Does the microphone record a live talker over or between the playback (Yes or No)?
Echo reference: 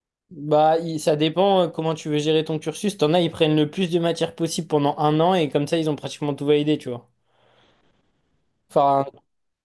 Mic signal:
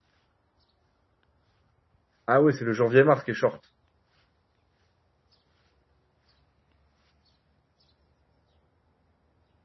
Yes